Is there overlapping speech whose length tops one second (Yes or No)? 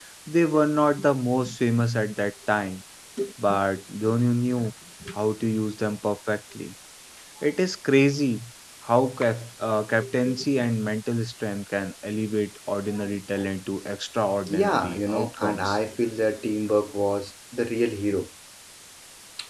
Yes